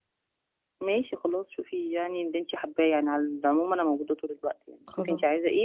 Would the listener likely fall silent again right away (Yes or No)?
Yes